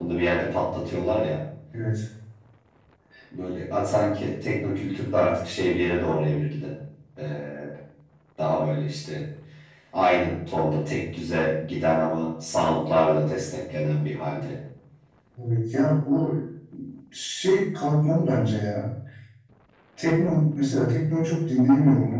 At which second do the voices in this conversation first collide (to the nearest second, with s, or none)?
none